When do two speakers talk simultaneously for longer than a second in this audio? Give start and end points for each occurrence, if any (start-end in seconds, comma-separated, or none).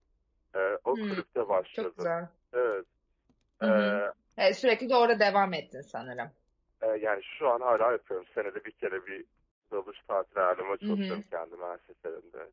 none